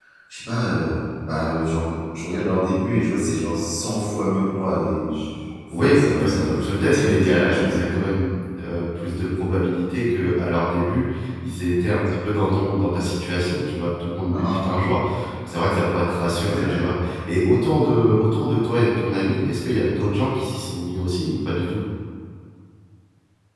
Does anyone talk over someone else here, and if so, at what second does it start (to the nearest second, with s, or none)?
6 s